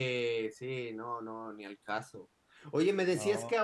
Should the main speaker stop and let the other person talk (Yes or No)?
No